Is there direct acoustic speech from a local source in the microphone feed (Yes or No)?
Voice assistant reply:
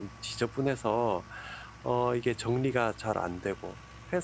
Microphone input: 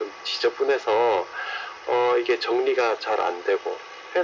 No